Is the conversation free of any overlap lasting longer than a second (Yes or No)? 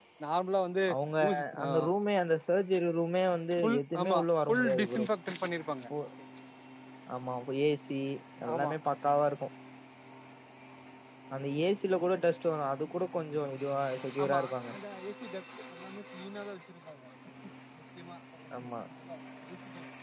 No